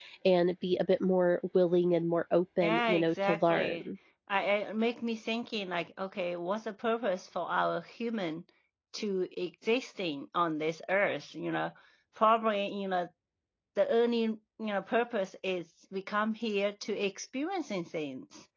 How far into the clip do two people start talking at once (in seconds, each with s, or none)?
2.6 s